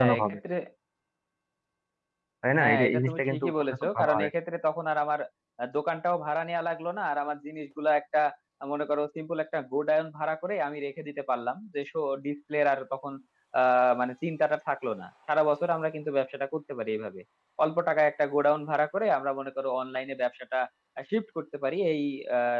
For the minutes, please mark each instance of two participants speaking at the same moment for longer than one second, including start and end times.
2.6-4.3

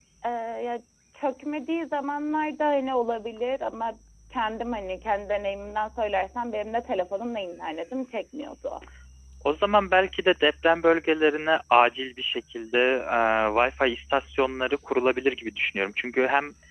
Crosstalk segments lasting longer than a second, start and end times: none

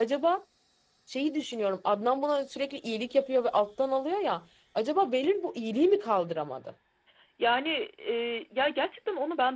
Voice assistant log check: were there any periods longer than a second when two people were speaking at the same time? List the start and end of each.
none

